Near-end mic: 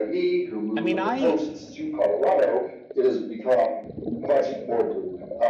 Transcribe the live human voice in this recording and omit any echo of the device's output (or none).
I mean, I